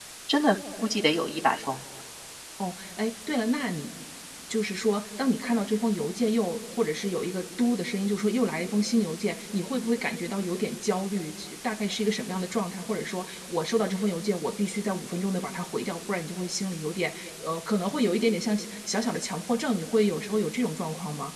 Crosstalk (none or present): none